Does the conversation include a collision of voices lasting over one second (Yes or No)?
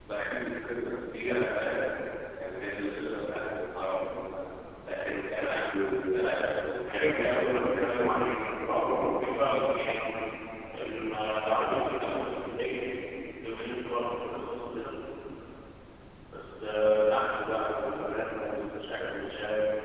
Yes